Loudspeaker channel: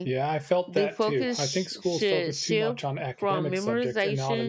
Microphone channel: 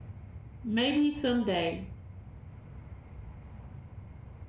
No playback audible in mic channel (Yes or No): Yes